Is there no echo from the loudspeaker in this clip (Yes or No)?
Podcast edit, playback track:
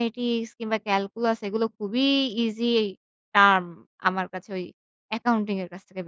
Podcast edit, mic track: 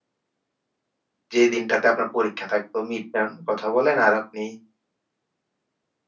Yes